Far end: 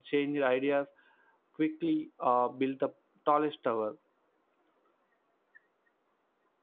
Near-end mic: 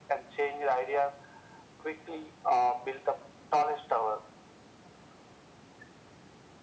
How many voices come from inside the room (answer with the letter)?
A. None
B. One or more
A